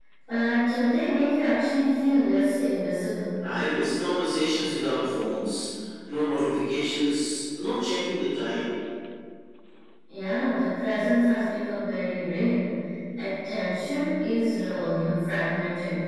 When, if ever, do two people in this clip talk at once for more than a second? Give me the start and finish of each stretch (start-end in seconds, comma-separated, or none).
none